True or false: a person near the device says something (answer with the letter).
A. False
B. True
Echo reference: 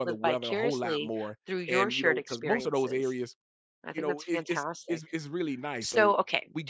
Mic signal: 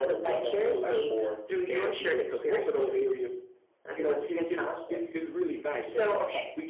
A